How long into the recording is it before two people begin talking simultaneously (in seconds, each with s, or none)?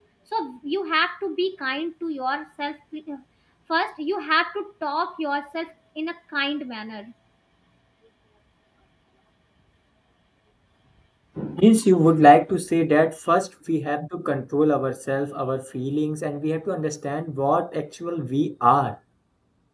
none